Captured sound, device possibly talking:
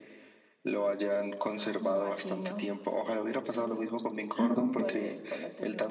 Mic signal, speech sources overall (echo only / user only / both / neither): both